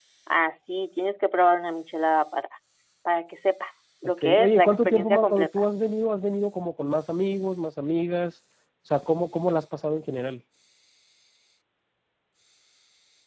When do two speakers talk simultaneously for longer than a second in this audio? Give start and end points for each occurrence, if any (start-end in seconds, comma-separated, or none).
4.2-5.6